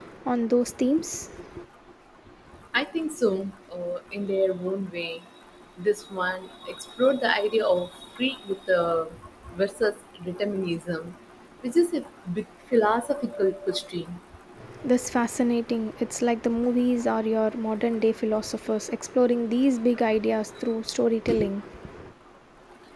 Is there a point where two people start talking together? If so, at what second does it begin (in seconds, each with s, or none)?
none